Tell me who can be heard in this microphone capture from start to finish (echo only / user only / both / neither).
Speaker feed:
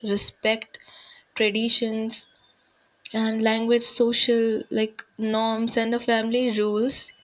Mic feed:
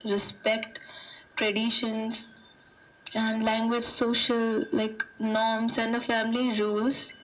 echo only